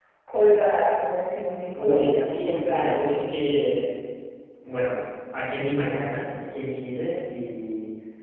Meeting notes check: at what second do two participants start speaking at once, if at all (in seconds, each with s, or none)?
1.8 s